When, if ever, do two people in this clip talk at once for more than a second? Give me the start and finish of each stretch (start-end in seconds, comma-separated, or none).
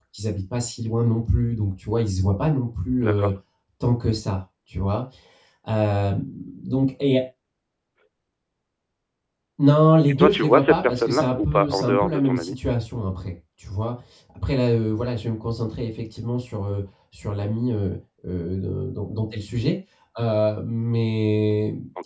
10.1-12.6